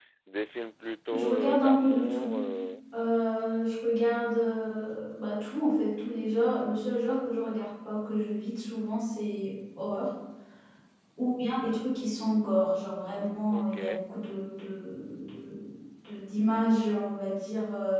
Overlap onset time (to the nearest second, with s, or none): 1 s